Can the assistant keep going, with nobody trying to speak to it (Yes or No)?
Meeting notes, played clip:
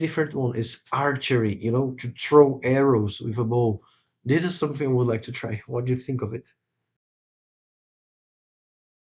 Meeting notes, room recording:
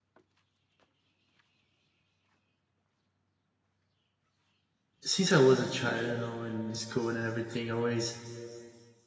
No